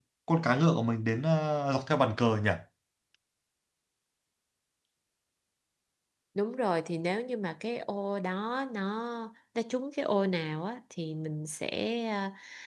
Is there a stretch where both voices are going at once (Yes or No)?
No